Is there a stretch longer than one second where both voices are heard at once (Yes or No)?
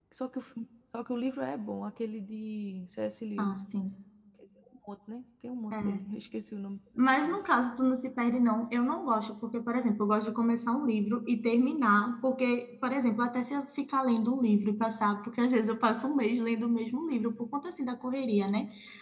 No